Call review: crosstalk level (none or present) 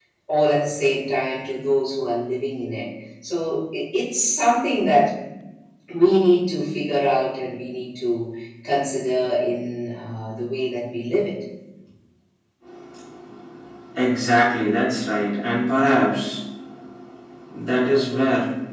none